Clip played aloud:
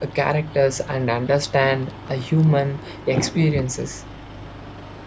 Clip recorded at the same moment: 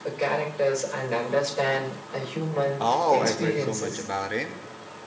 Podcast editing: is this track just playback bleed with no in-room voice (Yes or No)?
No